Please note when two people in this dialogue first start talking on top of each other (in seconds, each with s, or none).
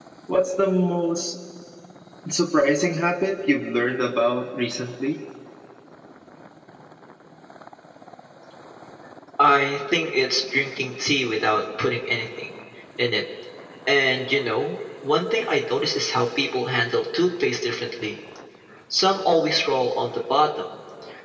none